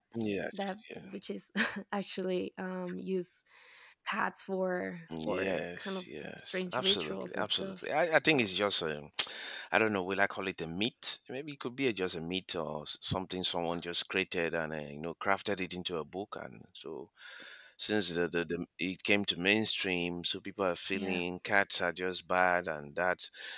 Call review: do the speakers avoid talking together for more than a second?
No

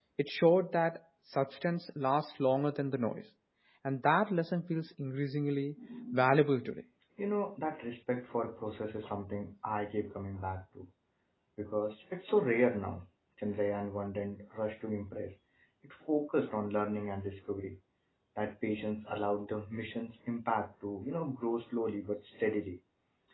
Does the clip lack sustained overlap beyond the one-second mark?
Yes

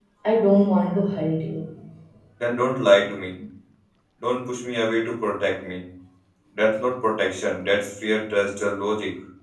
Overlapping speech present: No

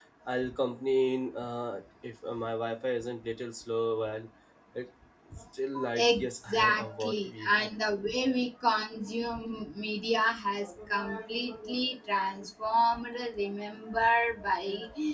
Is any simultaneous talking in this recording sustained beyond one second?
Yes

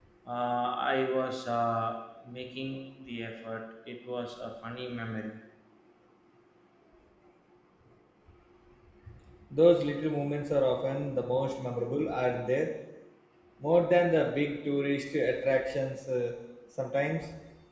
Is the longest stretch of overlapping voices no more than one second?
Yes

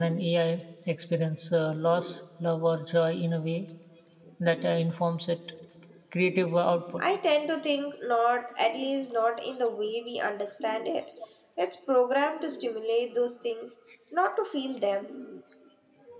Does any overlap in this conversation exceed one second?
No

